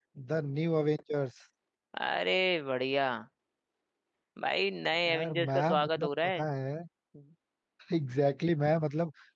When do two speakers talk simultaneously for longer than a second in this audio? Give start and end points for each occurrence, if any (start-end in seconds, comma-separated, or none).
5.1-6.4